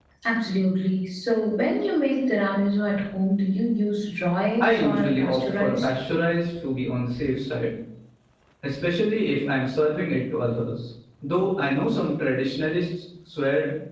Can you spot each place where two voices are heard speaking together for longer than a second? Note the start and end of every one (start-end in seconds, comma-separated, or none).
4.6-5.9